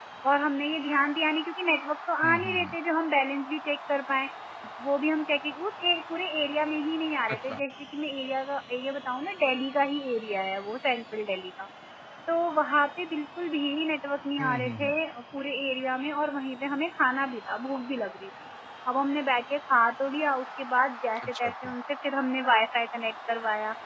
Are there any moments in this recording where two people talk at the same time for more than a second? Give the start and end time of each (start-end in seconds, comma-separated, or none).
none